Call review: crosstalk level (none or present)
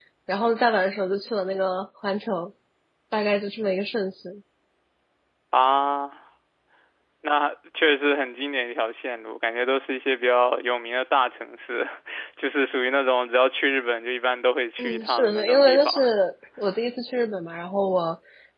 present